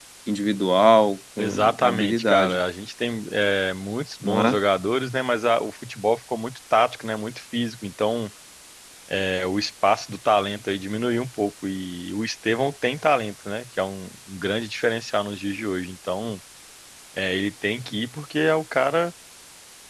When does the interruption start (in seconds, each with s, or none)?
1.4 s